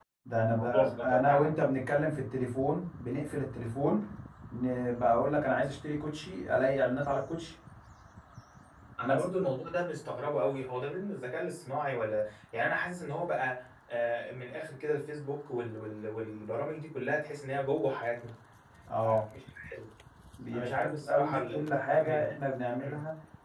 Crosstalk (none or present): present